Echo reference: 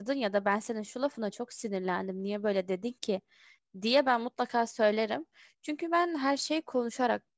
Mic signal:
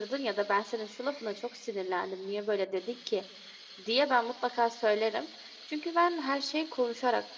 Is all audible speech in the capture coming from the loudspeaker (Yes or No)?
Yes